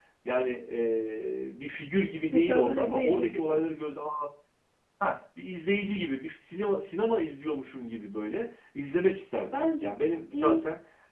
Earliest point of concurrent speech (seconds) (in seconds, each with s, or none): 2.3 s